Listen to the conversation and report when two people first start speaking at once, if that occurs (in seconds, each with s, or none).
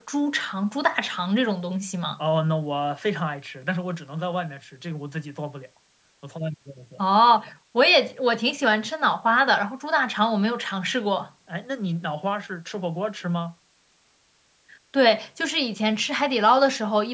none